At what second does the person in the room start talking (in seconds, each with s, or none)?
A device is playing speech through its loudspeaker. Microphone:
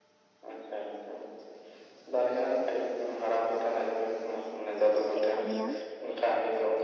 5.1 s